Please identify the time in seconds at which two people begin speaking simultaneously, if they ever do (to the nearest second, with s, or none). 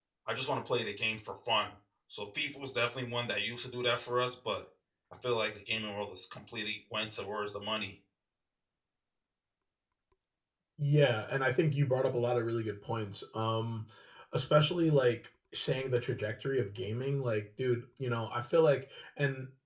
none